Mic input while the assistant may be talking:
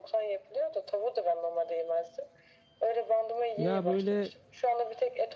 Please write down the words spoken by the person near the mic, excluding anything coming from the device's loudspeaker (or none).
Ya böyle